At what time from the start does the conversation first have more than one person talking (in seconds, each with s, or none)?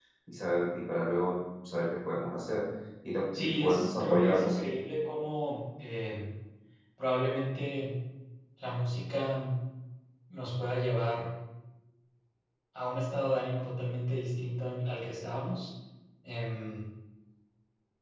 3.4 s